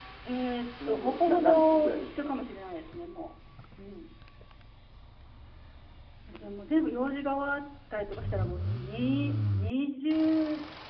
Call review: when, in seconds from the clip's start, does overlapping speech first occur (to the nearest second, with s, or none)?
1 s